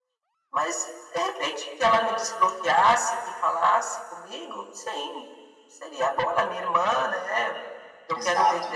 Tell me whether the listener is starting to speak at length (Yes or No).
No